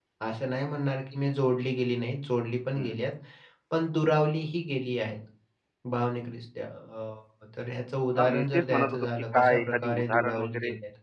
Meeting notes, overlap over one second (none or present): present